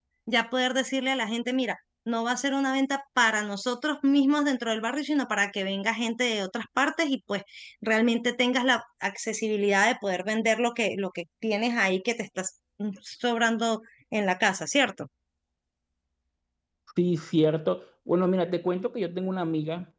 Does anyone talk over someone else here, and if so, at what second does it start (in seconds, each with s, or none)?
none